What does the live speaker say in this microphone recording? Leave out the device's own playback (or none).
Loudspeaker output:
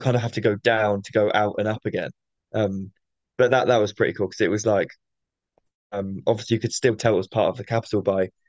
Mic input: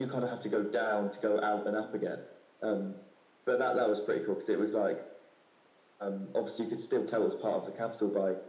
none